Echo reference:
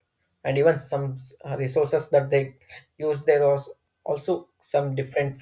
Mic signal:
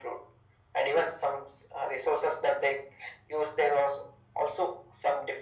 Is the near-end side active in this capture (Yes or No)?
No